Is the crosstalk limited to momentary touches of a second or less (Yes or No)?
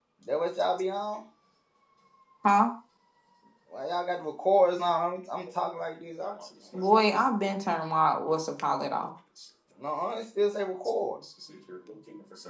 Yes